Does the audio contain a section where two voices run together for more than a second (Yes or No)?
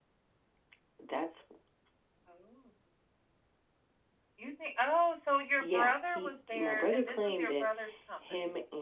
Yes